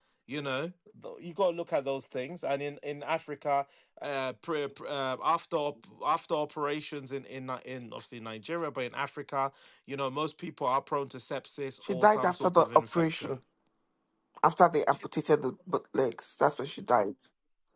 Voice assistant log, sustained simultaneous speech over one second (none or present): present